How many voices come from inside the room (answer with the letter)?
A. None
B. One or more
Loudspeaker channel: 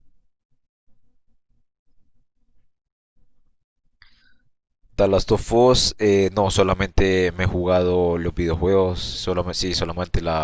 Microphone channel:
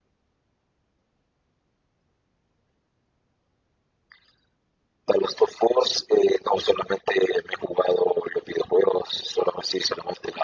A